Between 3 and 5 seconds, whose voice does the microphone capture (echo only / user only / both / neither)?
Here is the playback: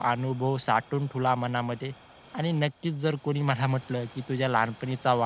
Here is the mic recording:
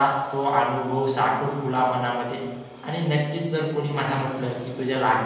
echo only